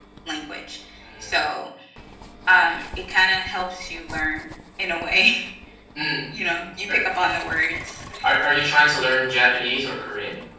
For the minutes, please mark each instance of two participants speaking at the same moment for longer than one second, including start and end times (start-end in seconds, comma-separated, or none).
none